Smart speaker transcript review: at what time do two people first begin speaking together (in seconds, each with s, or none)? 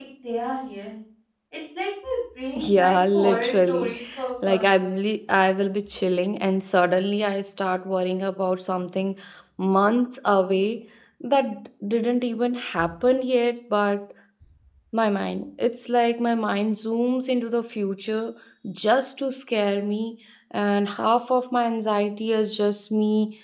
2.7 s